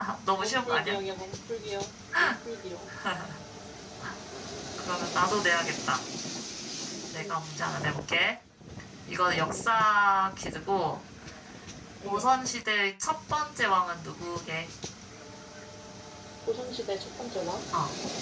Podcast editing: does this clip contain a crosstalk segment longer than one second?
No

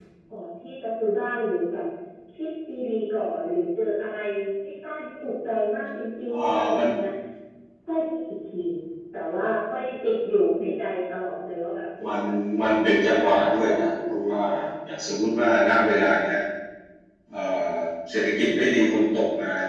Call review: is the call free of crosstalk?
No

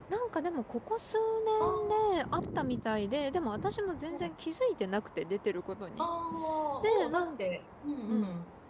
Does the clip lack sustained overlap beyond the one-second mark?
Yes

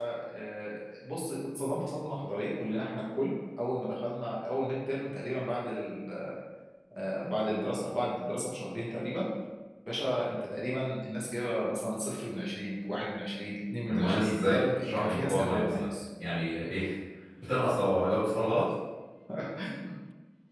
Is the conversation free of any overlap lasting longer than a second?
No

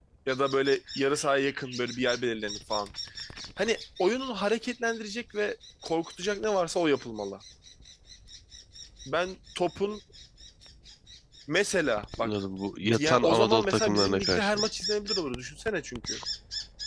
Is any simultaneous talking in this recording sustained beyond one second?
Yes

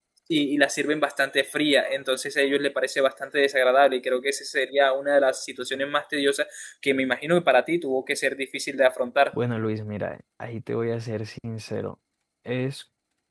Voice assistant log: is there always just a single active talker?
Yes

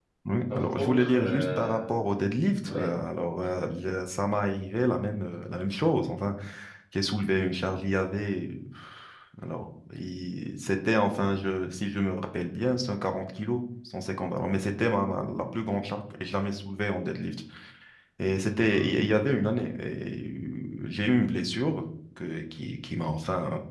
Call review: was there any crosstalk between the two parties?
Yes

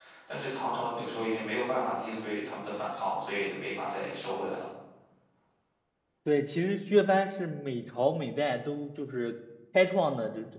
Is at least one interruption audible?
No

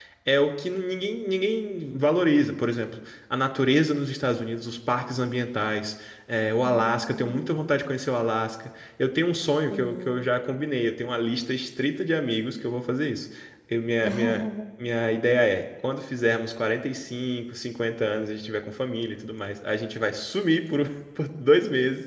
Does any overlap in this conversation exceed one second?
Yes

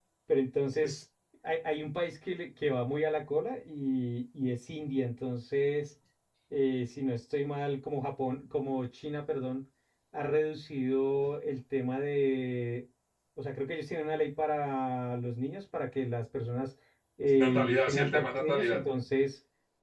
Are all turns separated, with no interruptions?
No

